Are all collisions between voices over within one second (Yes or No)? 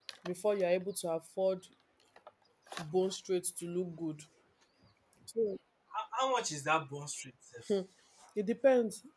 Yes